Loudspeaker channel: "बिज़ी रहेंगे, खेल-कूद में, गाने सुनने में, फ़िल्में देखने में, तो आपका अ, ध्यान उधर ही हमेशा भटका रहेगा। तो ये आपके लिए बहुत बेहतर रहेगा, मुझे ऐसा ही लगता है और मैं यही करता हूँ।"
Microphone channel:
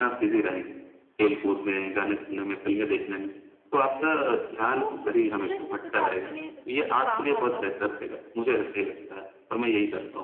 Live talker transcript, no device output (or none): तो इसमें से कुछ आपके लिए जैसे कुछ काम आता हो?